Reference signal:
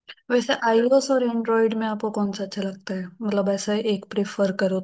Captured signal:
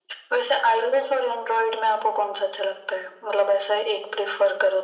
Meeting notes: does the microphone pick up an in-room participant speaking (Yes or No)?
No